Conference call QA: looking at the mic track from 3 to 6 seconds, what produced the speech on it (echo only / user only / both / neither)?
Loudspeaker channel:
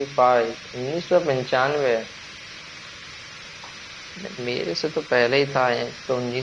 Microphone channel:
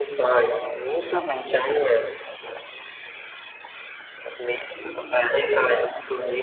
echo only